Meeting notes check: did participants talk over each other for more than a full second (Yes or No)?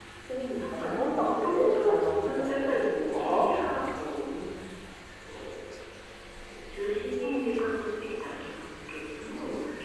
Yes